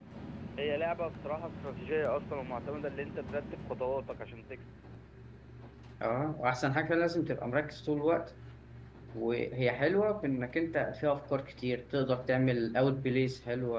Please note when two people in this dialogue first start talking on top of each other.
none

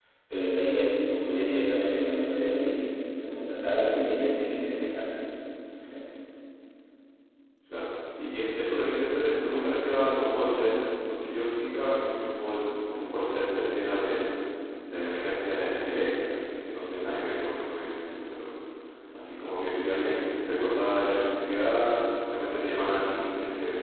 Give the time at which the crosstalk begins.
none

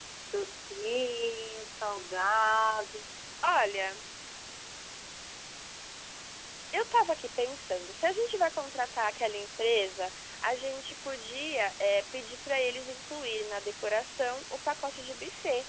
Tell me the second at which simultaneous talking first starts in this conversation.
none

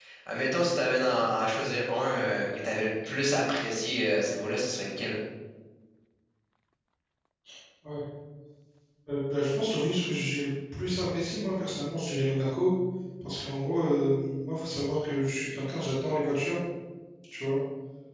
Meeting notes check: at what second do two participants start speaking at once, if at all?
none

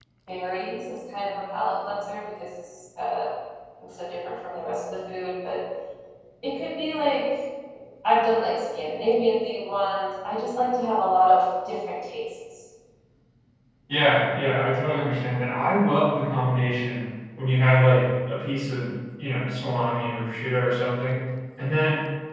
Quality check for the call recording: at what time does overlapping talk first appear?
none

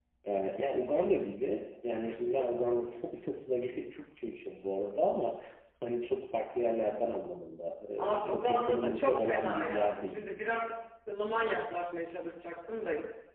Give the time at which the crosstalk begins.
8.2 s

